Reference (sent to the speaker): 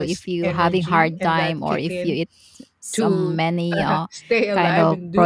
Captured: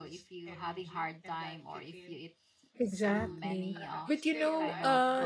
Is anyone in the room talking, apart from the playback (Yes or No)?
Yes